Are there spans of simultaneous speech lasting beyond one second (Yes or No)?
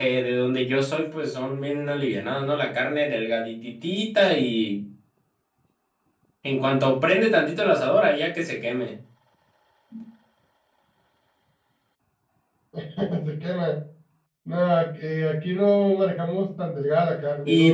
No